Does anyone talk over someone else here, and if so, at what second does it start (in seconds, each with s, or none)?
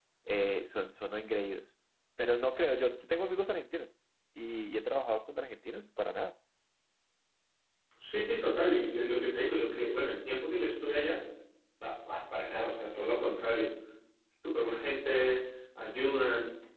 none